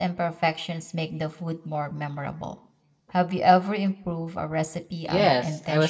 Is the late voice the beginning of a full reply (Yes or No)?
Yes